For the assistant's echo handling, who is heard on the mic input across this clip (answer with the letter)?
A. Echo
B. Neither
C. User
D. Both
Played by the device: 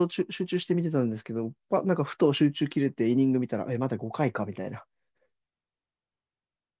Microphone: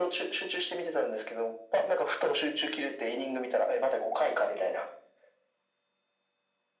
A